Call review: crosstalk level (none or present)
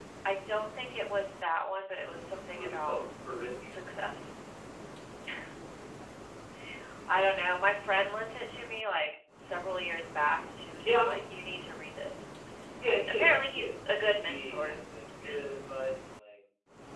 present